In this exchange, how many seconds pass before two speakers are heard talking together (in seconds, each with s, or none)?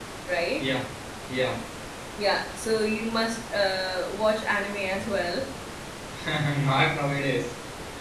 none